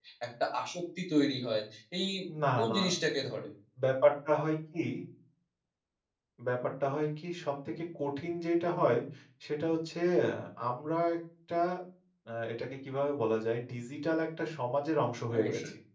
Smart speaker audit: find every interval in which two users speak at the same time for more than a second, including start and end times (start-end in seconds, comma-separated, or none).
none